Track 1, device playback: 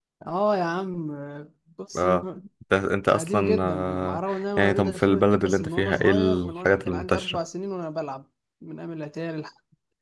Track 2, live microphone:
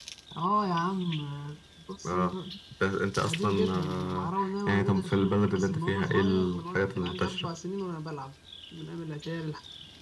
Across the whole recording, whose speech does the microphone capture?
echo only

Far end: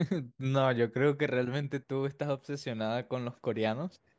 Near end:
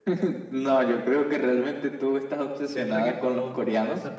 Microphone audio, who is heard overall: both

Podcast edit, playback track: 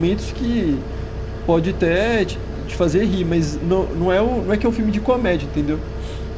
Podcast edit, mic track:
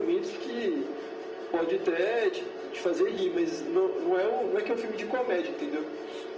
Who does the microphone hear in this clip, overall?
echo only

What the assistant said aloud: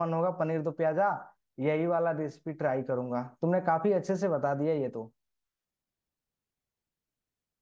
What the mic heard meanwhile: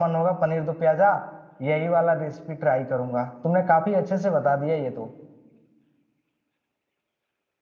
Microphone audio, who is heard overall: echo only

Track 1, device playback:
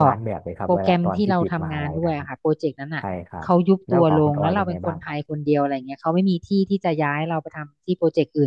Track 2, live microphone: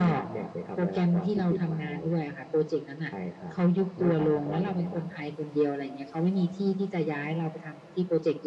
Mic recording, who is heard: echo only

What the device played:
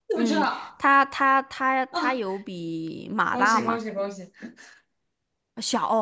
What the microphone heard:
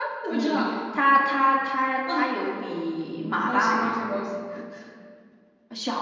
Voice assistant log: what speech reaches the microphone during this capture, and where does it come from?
echo only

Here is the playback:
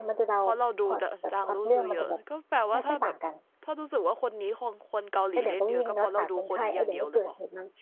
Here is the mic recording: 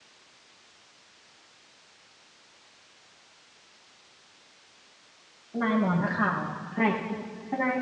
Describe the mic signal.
user only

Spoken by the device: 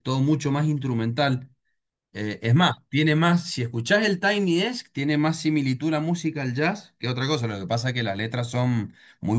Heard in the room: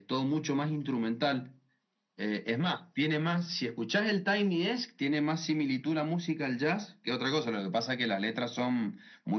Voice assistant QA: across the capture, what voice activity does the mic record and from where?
echo only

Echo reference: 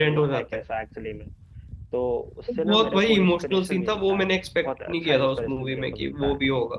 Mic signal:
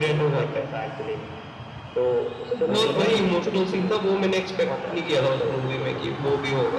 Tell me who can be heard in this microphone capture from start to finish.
both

